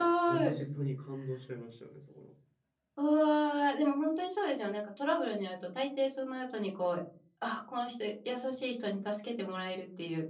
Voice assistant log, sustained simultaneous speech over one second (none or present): none